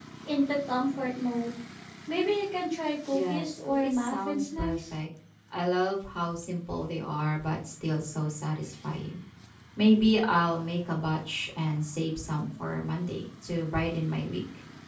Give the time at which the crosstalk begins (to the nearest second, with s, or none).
3 s